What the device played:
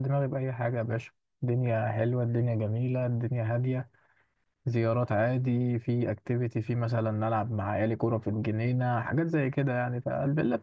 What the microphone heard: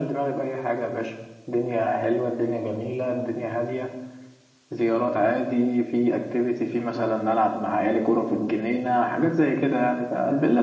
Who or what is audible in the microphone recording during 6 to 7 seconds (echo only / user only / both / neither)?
echo only